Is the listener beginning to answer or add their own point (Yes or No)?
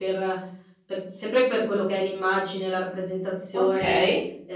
No